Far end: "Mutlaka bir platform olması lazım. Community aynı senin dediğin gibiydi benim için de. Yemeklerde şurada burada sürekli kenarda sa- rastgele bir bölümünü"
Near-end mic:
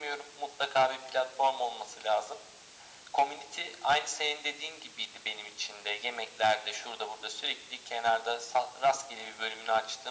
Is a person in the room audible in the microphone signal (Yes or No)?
No